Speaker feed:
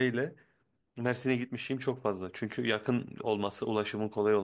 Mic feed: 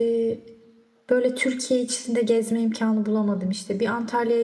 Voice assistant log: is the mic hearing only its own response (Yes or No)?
No